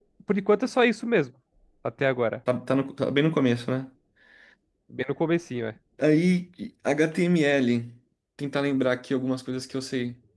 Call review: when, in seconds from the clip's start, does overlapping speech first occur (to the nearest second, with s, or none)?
none